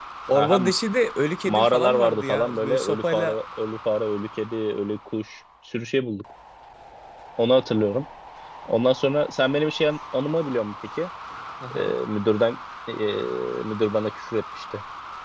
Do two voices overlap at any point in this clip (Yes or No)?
Yes